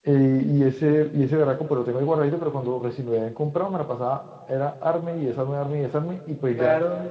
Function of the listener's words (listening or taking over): listening